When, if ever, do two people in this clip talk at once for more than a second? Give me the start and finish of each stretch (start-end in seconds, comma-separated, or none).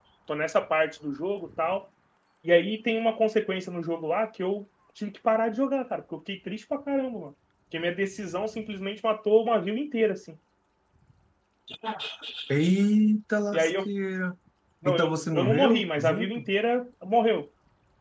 14.8-16.5